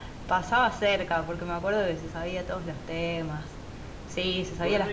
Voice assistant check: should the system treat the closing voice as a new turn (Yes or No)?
Yes